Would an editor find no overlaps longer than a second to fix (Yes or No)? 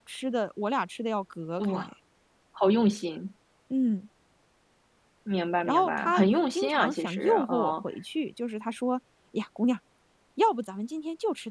No